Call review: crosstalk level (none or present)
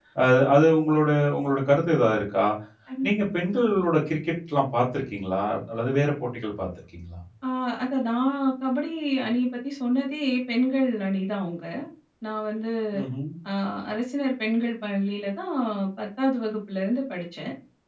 none